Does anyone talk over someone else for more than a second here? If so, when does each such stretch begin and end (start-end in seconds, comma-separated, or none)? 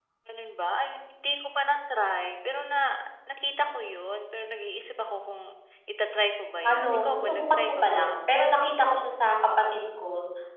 6.7-8.1